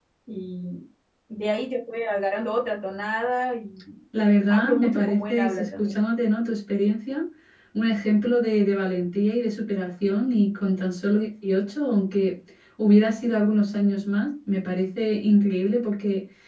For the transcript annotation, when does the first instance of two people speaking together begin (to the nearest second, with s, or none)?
4 s